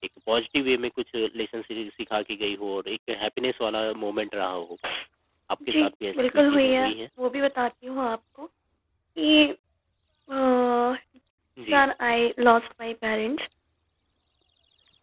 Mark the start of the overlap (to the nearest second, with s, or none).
6 s